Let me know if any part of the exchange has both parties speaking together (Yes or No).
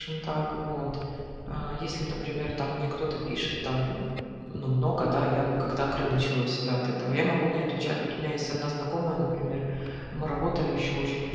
No